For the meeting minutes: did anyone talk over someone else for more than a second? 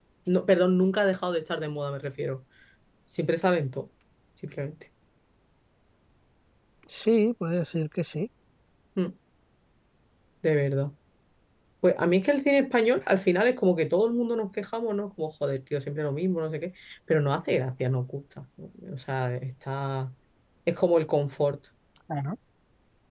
No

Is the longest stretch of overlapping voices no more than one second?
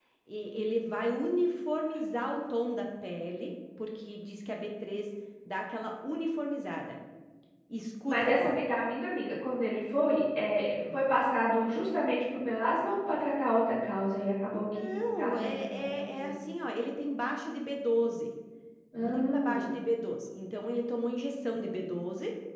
No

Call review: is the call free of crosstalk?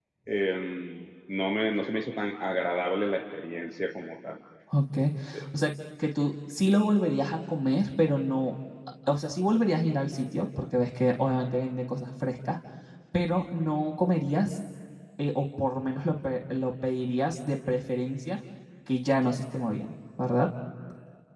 Yes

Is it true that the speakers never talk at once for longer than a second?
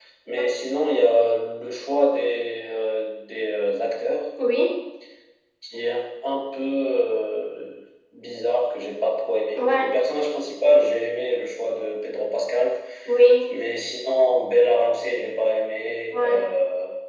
Yes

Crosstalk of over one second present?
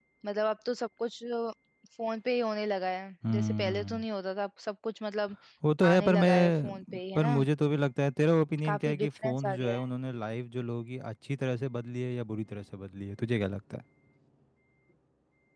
Yes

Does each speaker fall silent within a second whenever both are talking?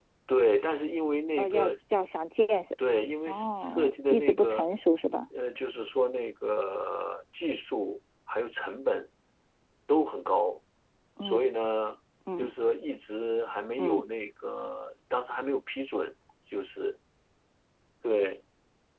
No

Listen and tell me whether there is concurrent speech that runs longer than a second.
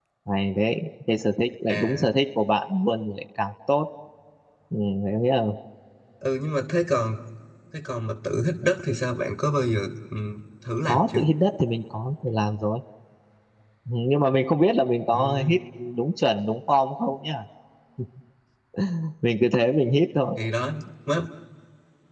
No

